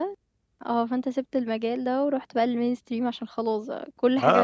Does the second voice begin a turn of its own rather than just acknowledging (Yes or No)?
Yes